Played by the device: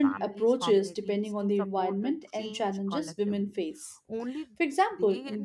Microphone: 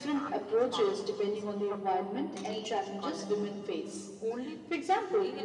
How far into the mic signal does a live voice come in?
none

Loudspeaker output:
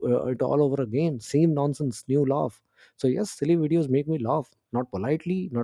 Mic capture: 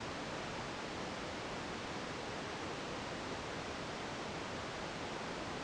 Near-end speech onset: none

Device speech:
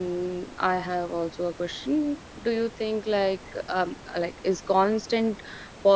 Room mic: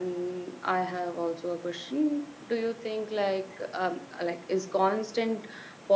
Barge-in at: none

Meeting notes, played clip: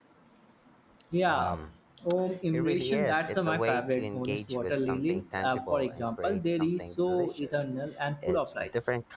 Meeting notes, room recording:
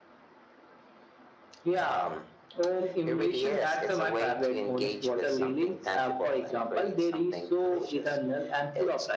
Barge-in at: none

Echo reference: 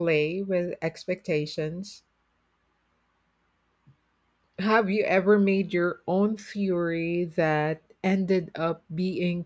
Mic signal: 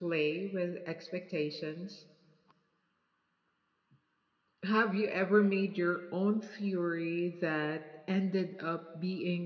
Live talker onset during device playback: none

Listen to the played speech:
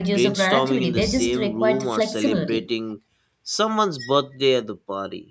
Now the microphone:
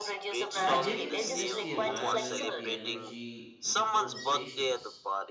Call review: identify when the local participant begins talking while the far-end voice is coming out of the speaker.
0.6 s

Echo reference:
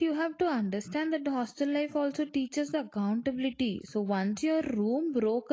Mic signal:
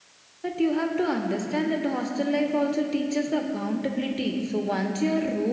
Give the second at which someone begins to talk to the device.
none

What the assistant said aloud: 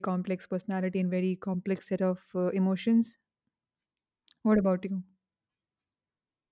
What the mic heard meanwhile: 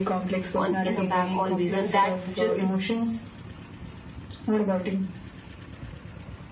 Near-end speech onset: 0.6 s

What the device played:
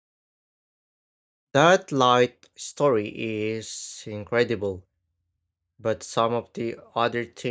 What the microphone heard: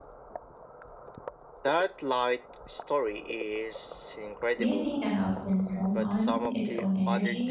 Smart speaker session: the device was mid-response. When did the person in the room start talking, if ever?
4.6 s

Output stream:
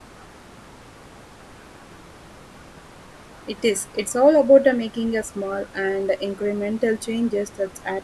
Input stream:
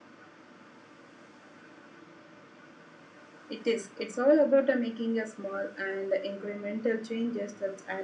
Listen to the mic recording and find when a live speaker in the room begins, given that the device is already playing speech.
none

